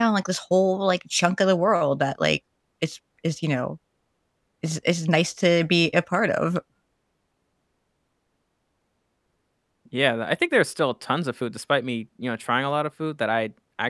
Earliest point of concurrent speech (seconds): none

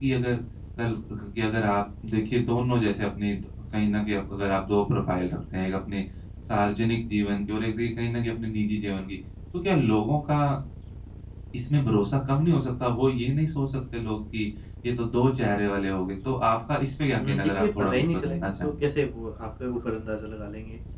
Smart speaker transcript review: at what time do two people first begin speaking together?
17 s

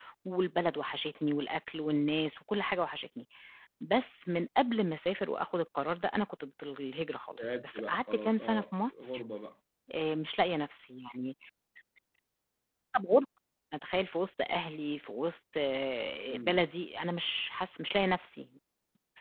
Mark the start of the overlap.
7 s

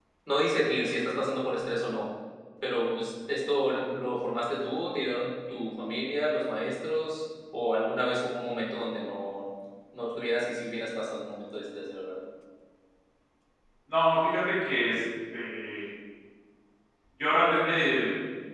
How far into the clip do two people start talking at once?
none

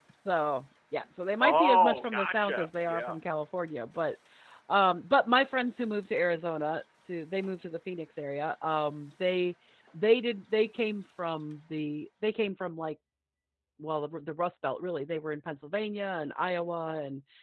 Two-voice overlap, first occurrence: 1 s

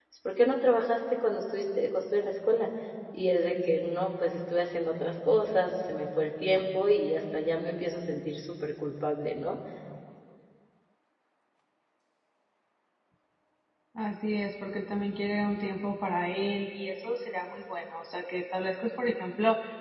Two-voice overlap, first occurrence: none

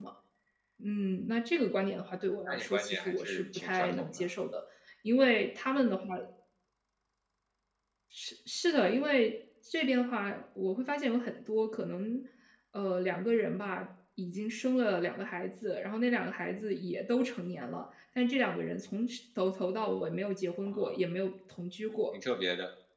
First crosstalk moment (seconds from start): 2 s

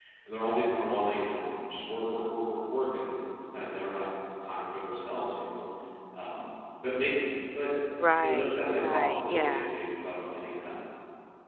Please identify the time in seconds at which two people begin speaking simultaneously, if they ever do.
8 s

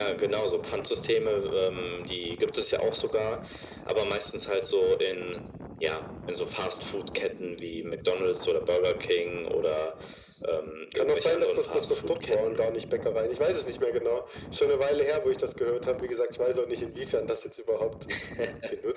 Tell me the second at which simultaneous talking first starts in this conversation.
11 s

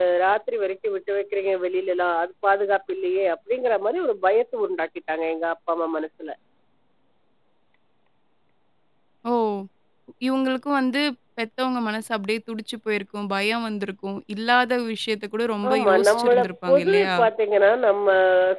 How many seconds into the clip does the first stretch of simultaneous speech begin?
16 s

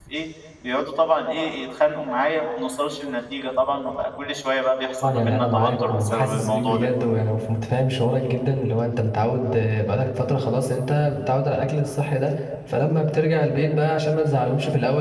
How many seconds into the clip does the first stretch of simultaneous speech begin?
5 s

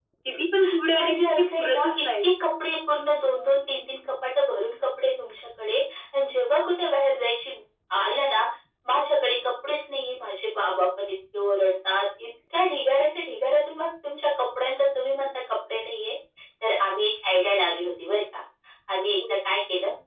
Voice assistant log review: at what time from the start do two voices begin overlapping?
1 s

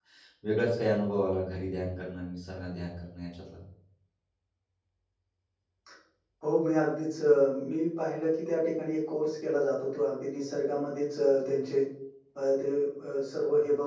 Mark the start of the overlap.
none

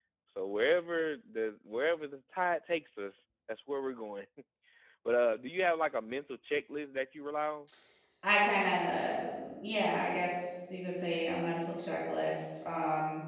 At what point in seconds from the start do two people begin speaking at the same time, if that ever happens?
none

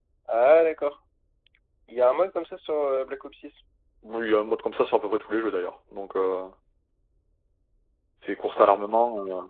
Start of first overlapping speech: none

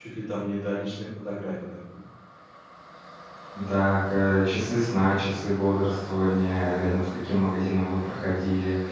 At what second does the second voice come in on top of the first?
none

